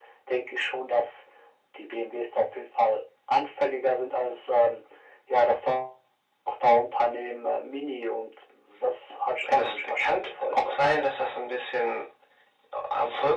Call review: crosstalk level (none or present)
present